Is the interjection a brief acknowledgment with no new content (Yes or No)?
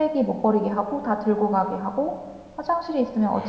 Yes